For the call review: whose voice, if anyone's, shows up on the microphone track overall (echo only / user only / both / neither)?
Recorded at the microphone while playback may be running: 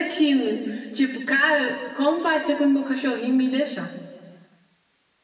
echo only